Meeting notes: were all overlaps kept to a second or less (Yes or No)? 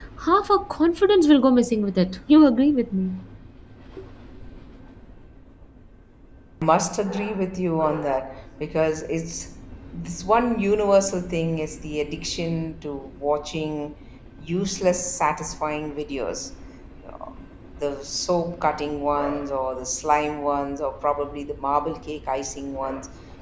Yes